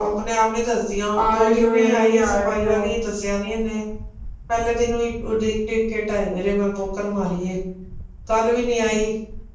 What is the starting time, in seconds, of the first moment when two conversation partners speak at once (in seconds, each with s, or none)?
1.2 s